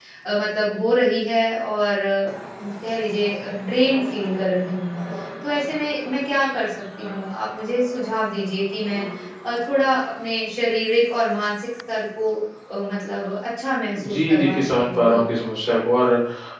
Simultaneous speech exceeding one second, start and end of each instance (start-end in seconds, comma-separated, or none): 14.0-15.2